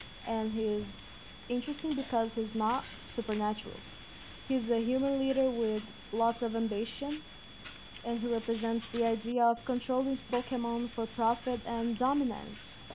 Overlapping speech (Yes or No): No